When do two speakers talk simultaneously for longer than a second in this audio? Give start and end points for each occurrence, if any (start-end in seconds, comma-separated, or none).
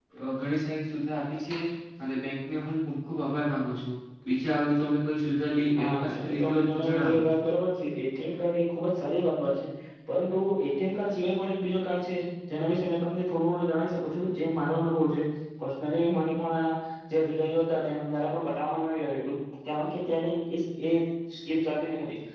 5.8-7.2